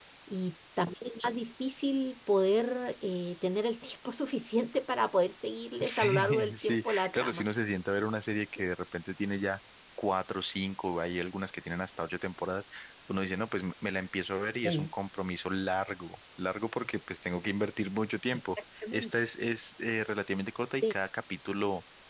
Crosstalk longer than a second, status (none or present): present